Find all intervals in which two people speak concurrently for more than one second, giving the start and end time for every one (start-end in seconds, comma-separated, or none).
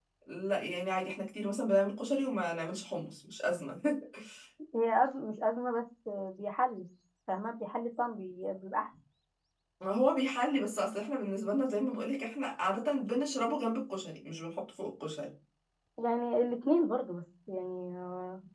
none